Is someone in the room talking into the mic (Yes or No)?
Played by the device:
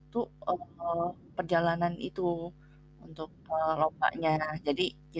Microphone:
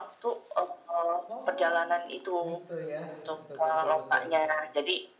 Yes